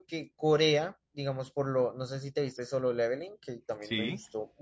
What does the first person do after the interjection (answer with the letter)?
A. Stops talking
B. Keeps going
B